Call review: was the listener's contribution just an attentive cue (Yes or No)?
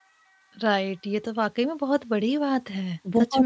No